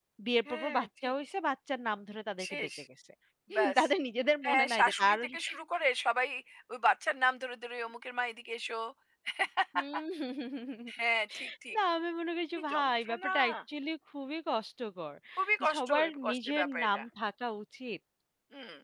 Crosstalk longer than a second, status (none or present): present